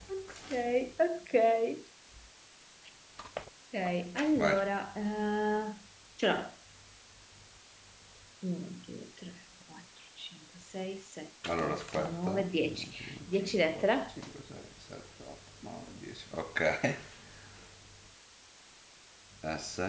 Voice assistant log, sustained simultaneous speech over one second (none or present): present